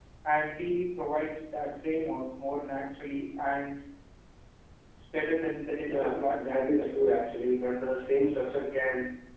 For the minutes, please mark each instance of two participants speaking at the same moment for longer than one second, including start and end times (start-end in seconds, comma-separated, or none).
5.9-7.1